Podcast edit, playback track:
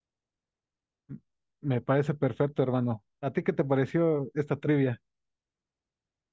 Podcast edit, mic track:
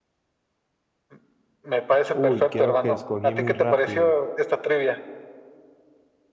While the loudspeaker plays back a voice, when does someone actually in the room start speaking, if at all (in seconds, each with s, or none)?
2.1 s